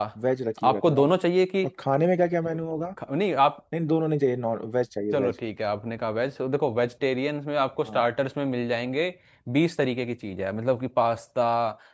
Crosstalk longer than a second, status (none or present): none